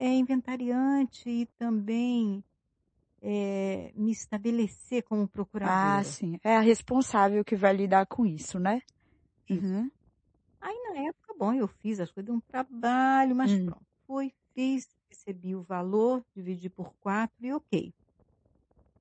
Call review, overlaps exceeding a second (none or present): none